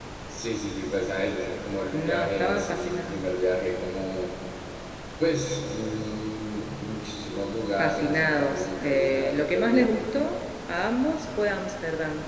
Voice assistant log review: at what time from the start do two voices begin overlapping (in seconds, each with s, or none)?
1.9 s